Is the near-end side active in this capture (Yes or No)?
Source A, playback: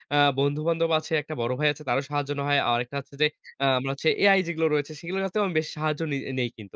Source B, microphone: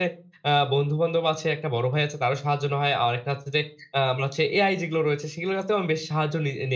No